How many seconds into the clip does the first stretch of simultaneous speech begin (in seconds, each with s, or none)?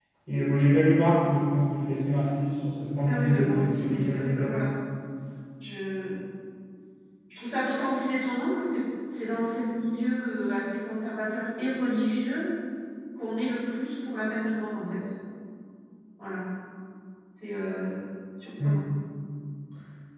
3.1 s